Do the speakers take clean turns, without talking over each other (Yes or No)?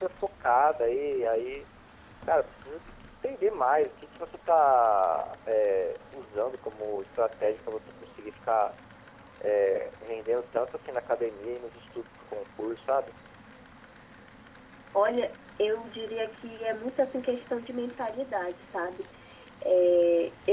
Yes